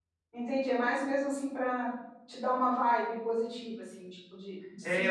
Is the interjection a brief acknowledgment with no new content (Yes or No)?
No